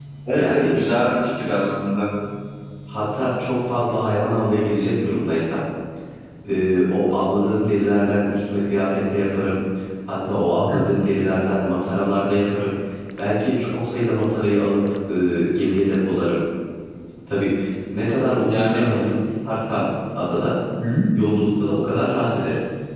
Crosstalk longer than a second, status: none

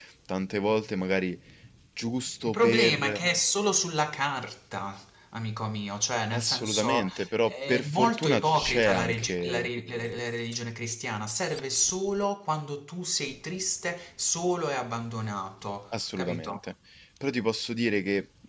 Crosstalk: present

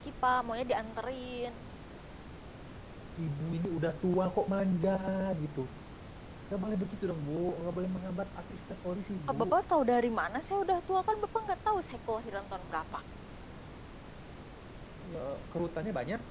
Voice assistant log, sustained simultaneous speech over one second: none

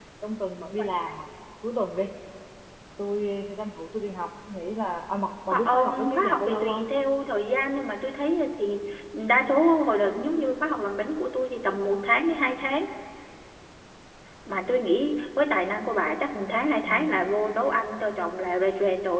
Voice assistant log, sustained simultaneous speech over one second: present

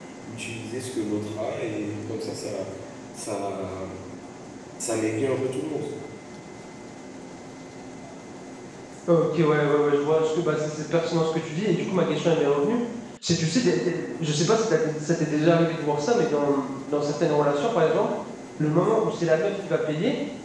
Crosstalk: none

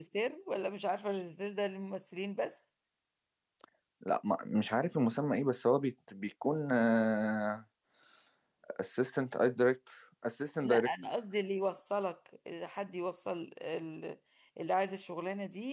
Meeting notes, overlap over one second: none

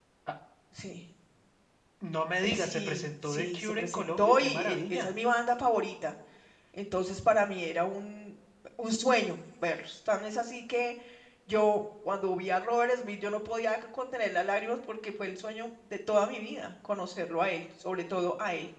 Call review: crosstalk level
present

